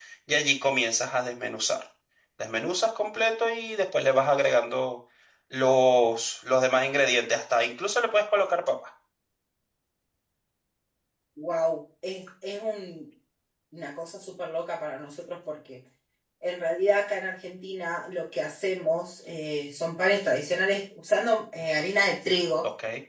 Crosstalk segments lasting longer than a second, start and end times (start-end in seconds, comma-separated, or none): none